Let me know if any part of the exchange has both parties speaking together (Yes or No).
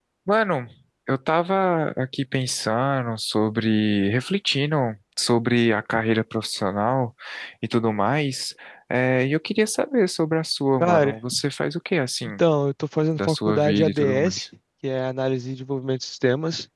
Yes